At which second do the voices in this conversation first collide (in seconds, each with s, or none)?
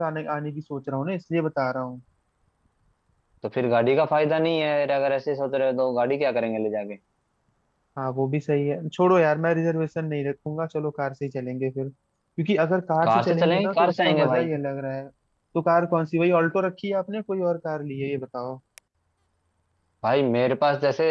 13.0 s